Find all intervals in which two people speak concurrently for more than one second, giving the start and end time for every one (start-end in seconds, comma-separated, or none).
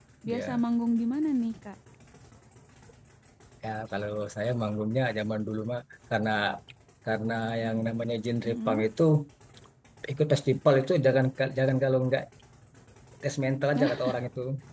none